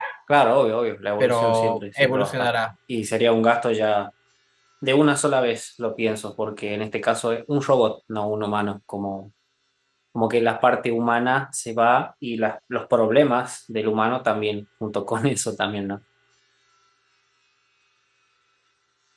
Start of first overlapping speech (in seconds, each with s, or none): 1.2 s